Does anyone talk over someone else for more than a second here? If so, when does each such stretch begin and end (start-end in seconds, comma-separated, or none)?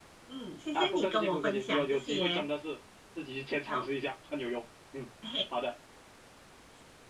0.7-2.4